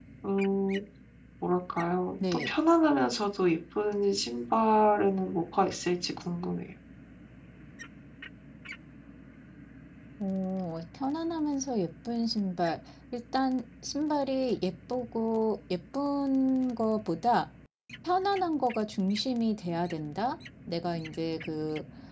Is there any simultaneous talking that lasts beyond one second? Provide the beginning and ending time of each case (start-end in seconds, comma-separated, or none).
none